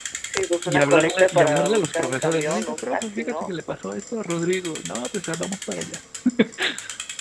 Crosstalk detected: Yes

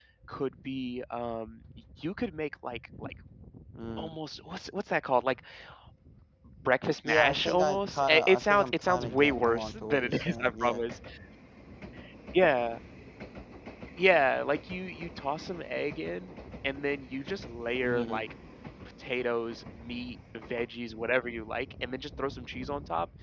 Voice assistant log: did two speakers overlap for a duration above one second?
Yes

